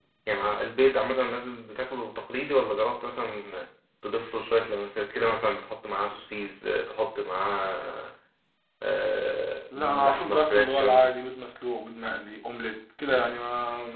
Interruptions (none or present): present